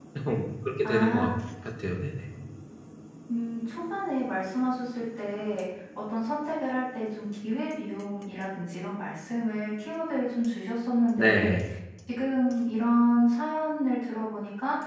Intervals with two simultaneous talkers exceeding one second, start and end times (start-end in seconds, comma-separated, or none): none